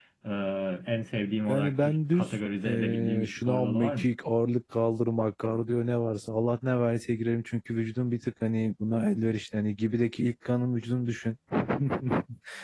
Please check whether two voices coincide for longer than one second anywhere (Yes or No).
Yes